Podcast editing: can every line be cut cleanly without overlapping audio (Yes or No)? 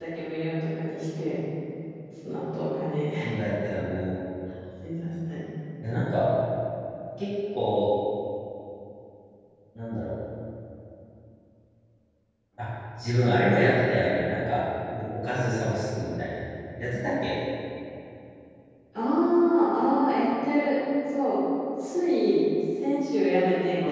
Yes